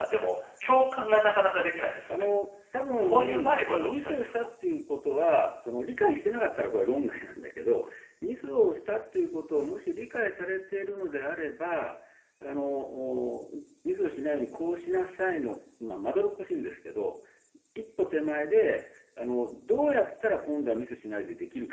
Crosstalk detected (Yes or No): Yes